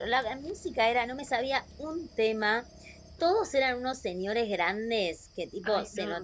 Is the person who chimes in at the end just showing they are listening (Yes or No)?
Yes